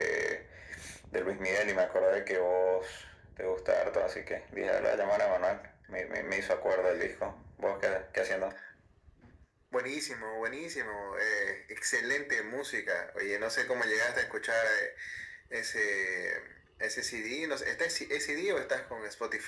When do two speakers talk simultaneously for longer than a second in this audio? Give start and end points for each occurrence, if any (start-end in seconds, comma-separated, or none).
none